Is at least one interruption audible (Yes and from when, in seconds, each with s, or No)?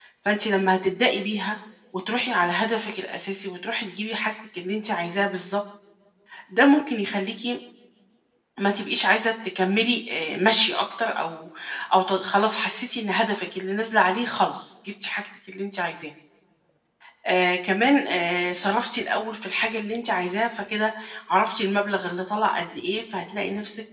No